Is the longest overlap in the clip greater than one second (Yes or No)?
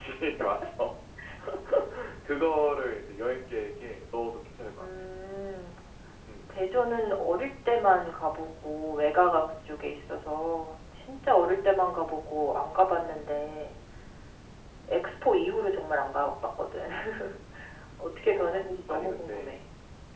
Yes